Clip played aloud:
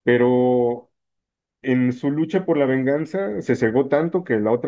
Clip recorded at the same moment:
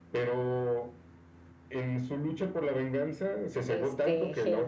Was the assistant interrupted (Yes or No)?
Yes